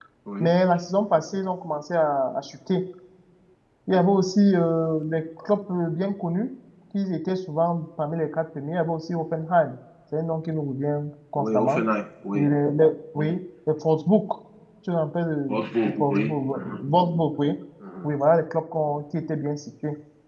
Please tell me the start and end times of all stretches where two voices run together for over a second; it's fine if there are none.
15.5-16.8

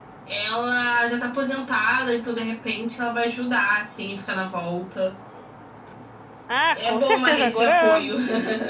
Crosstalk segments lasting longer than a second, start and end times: 6.7-8.0

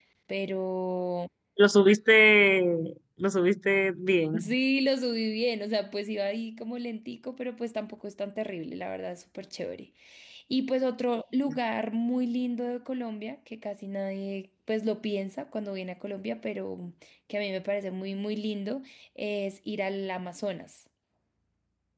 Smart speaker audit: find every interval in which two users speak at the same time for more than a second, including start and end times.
none

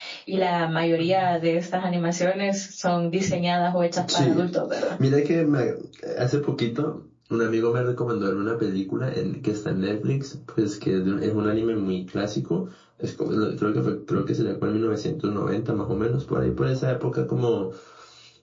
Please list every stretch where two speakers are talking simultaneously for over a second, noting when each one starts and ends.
none

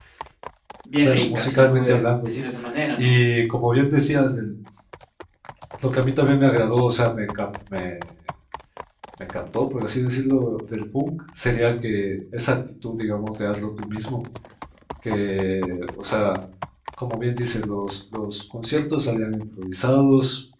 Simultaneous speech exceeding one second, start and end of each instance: 1.0-2.4

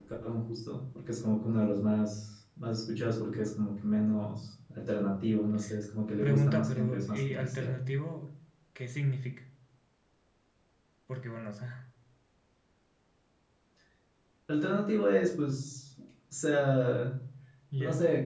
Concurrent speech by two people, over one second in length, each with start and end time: 6.2-7.8

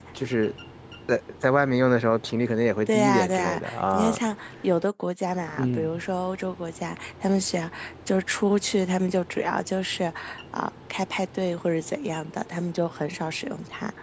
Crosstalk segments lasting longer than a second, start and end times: 2.9-4.2

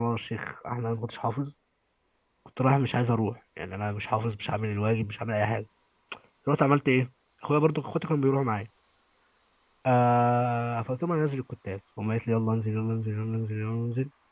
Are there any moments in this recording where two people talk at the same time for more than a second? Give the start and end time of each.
none

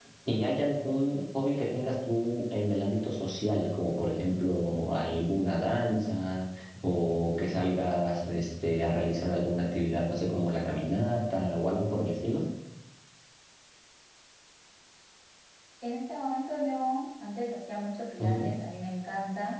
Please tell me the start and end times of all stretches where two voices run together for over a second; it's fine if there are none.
none

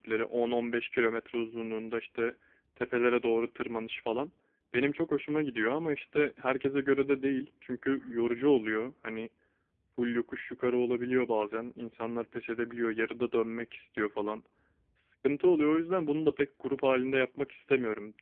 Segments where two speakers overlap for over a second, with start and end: none

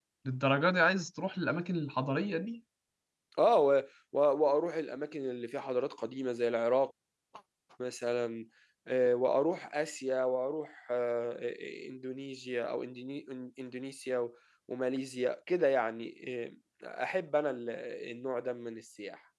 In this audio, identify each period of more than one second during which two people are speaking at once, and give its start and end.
none

